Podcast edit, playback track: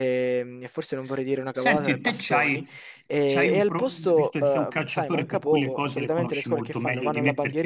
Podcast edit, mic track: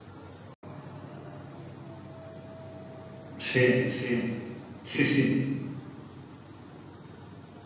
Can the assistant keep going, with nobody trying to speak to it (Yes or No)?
No